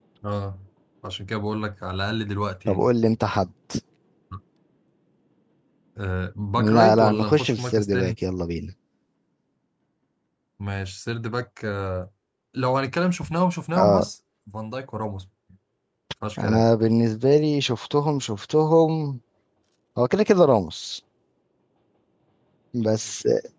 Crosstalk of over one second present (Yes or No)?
Yes